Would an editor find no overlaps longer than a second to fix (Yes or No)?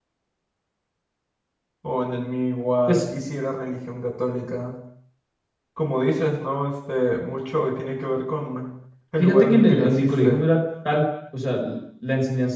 No